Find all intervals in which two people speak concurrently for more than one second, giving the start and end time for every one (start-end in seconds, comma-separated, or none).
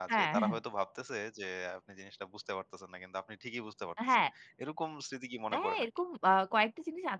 none